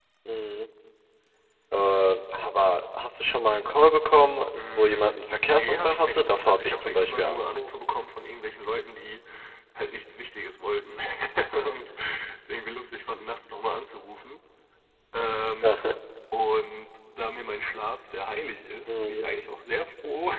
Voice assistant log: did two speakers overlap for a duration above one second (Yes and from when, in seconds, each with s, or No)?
Yes, from 4.6 s